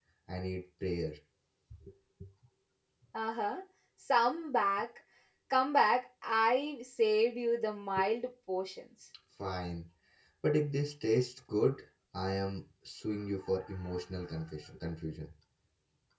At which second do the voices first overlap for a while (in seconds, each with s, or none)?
none